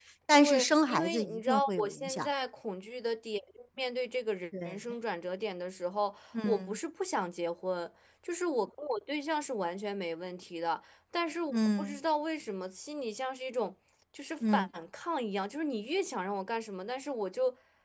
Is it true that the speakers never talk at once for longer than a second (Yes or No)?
No